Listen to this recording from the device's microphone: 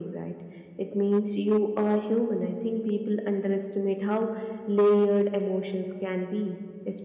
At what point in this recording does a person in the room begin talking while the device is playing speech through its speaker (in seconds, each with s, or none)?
none